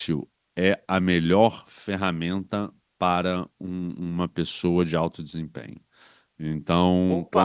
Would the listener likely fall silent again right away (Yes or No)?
Yes